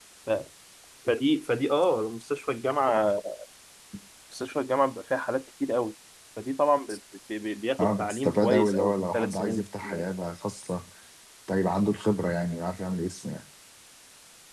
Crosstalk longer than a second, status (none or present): present